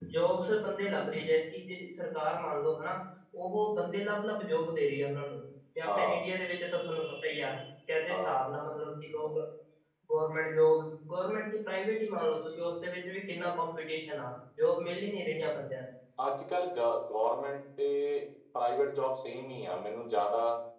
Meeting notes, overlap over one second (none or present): none